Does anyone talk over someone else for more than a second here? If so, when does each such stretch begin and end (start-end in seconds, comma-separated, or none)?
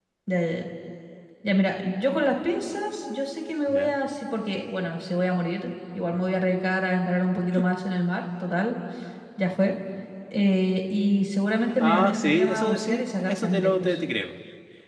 11.8-14.0